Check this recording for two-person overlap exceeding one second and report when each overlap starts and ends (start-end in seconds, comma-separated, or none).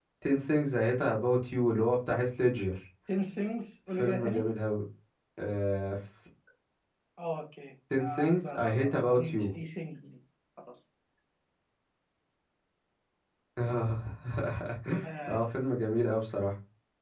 8.0-9.5